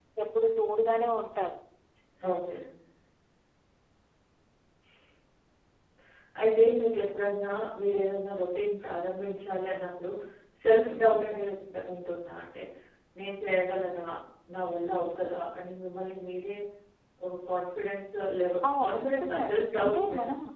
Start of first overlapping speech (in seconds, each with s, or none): 18.6 s